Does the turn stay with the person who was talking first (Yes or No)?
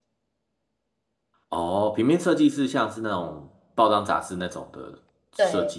No